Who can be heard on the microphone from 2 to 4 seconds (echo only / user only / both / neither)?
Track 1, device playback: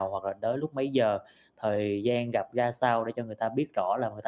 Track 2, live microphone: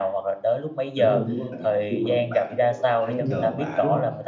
both